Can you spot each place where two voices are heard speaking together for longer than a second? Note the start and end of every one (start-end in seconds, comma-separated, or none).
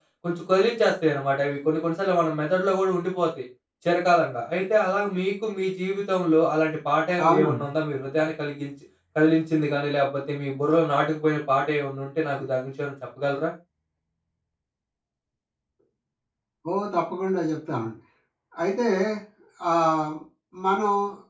none